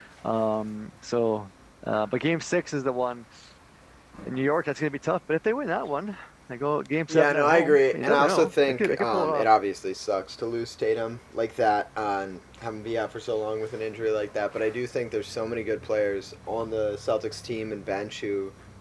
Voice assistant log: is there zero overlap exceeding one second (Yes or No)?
No